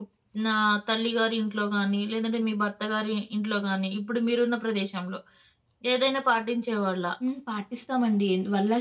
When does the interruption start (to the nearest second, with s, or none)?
none